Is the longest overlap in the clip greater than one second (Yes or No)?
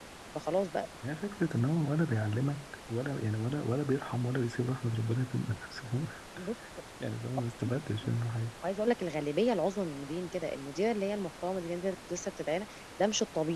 No